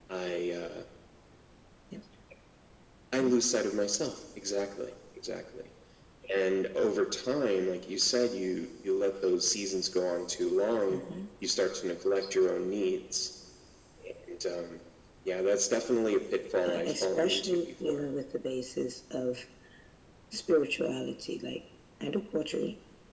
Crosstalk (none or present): present